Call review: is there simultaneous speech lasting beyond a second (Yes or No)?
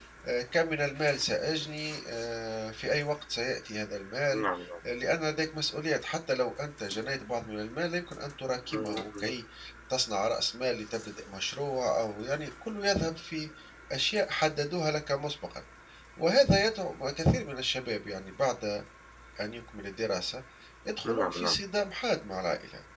No